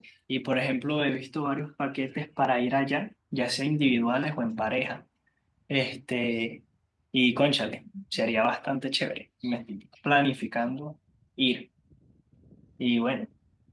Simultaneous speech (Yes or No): No